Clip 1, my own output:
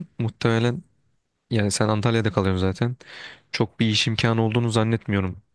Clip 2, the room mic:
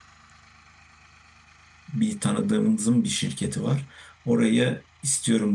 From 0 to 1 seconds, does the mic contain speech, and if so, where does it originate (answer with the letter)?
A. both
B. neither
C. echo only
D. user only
B